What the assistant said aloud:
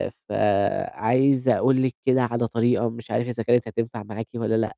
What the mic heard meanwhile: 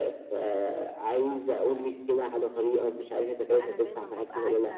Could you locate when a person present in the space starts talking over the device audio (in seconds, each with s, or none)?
3.5 s